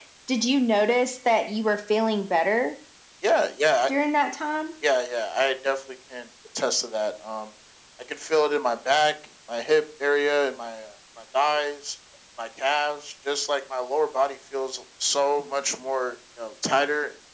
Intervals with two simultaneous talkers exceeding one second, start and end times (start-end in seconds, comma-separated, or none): none